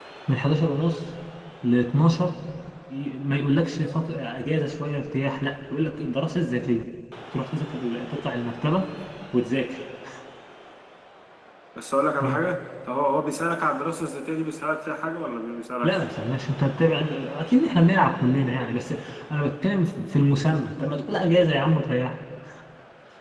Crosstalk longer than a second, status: none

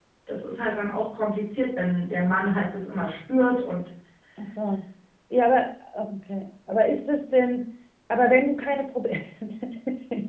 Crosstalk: none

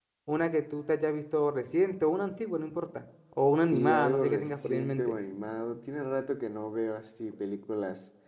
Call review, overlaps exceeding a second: present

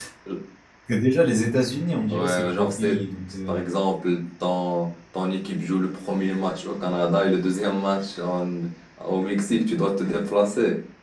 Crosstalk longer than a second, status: present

